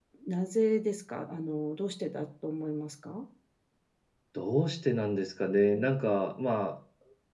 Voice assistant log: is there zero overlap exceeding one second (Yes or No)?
Yes